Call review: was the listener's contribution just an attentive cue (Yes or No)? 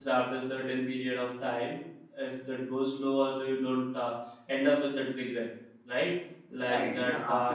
No